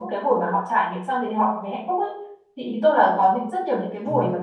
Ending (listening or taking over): listening